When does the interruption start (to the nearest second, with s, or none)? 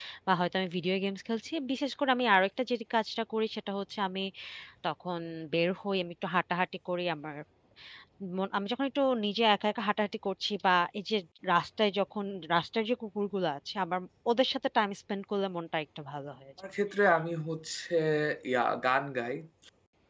none